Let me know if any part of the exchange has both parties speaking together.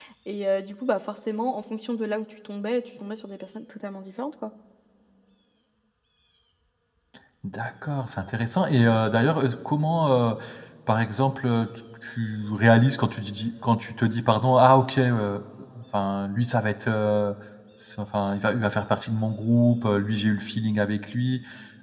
No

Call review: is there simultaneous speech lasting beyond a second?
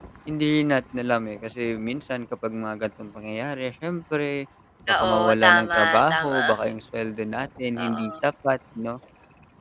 Yes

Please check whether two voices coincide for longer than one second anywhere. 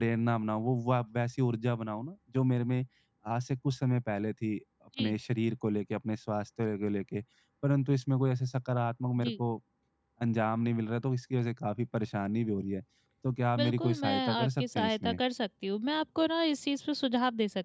Yes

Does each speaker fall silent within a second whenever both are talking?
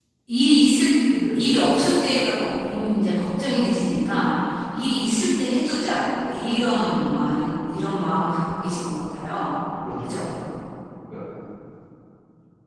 Yes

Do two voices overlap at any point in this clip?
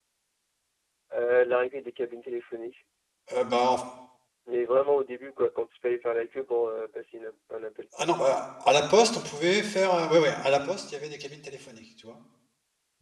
No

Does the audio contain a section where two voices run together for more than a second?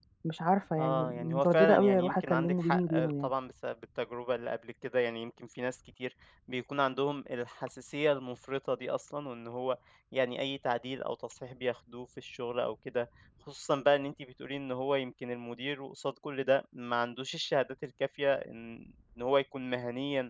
Yes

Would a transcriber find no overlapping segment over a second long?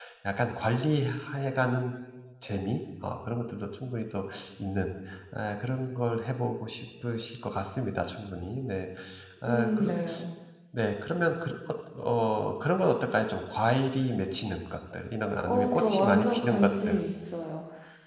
No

